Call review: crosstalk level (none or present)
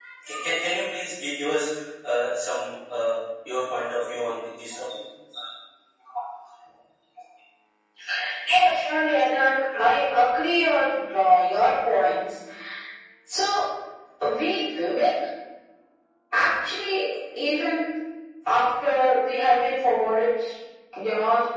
none